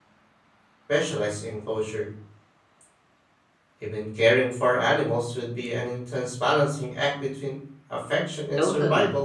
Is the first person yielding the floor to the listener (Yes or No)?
Yes